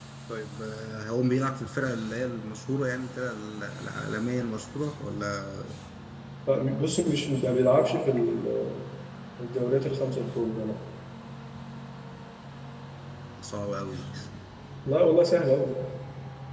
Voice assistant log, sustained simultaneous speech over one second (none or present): none